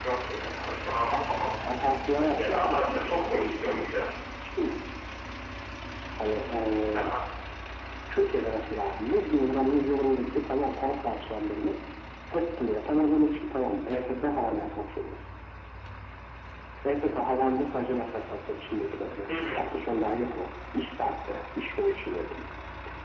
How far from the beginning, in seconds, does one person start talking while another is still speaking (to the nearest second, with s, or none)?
2 s